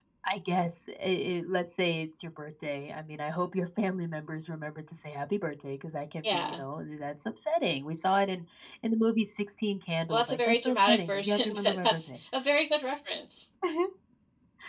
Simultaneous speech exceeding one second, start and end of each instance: 10.1-12.2

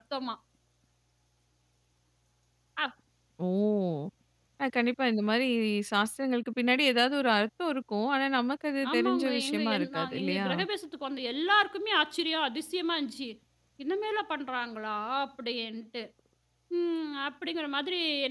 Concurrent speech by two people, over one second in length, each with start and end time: 8.9-10.5

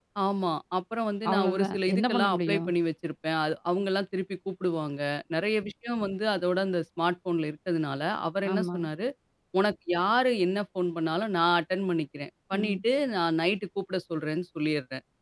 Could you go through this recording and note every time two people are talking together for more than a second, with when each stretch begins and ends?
1.3-2.6

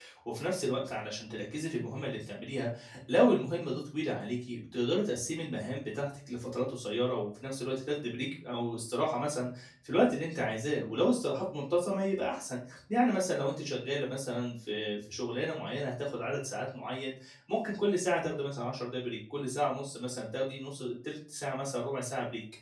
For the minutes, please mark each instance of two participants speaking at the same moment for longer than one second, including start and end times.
none

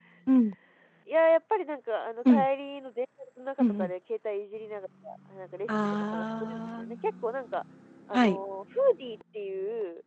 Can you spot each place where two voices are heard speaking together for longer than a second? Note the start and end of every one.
5.7-7.0

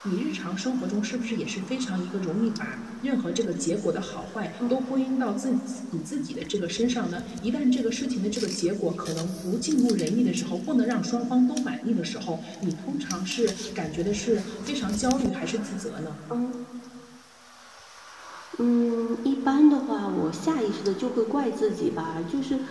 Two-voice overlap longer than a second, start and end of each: none

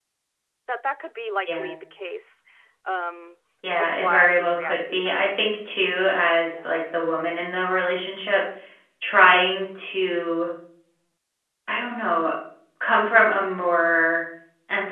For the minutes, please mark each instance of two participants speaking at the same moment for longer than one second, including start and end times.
3.8-5.5

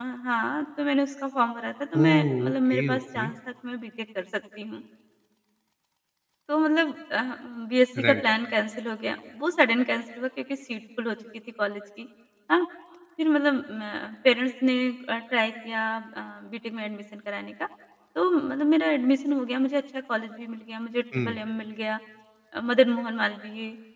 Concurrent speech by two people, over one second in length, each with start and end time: 2.0-3.3

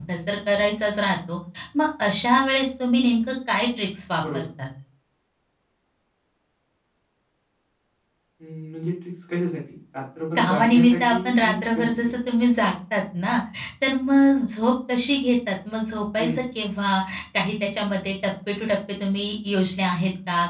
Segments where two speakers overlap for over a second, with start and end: 10.3-12.1

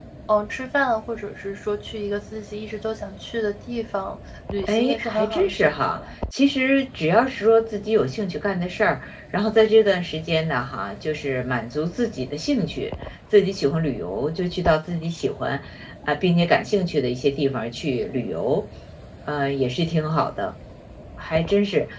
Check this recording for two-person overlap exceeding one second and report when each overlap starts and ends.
4.7-6.0

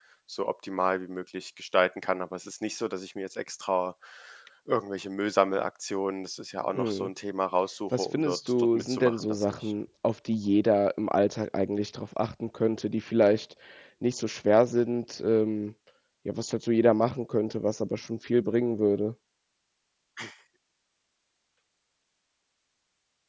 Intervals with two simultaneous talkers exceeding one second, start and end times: 7.9-9.7

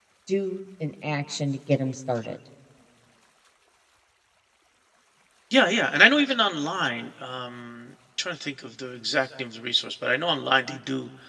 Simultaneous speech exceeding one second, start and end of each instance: none

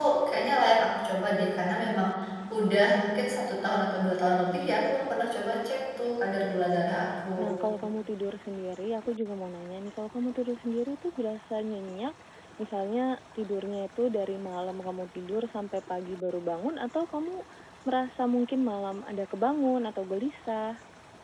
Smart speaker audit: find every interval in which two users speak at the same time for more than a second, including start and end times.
none

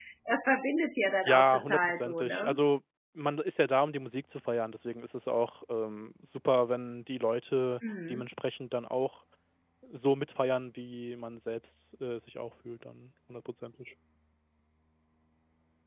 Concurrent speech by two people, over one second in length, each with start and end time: 1.2-2.6

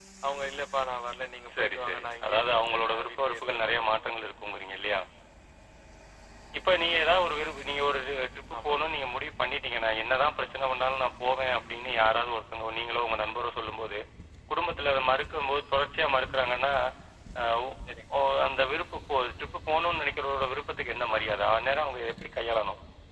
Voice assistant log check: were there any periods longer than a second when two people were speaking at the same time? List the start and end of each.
1.5-3.8

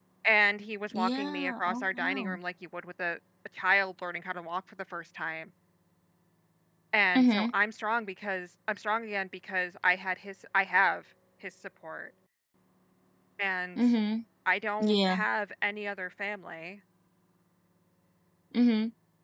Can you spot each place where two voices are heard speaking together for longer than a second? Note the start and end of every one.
0.9-2.4

